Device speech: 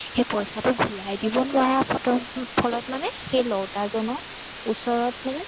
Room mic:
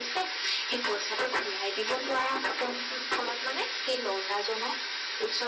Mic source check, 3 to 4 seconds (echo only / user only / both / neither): echo only